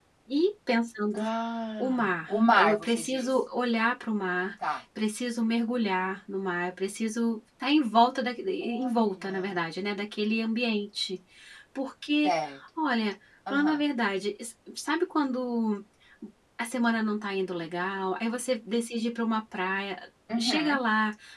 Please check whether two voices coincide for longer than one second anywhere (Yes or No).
Yes